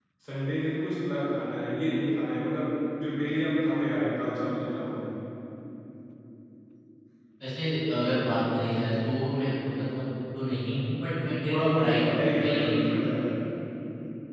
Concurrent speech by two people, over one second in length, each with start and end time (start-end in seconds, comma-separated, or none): 11.5-12.7